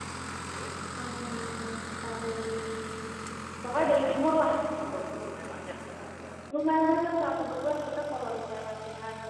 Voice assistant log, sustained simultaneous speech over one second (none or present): none